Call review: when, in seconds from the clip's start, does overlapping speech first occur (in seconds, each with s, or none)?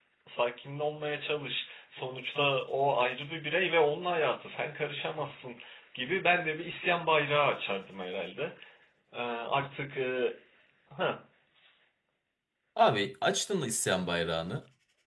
none